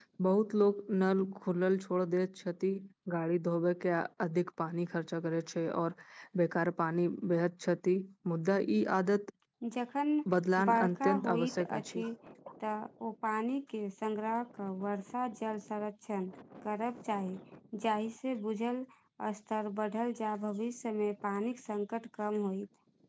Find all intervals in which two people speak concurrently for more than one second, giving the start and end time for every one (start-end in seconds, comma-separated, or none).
10.7-12.0